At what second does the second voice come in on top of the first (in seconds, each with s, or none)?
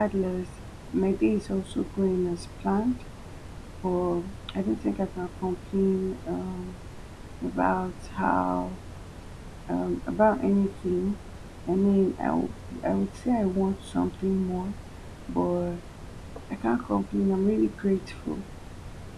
none